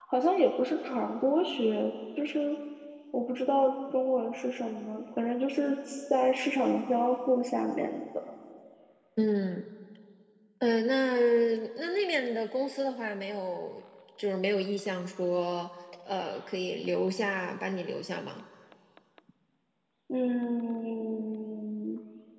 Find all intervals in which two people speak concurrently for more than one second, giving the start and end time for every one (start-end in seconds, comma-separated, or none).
none